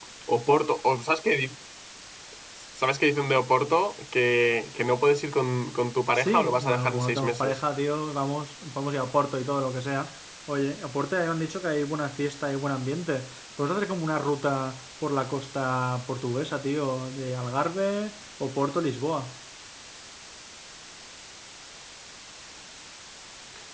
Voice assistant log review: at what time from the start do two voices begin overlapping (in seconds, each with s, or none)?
6.1 s